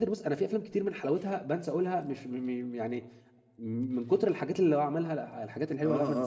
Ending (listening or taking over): taking over